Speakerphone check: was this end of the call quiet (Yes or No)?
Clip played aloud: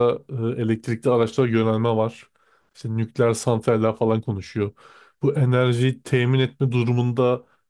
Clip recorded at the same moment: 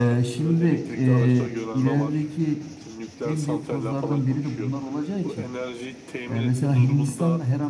No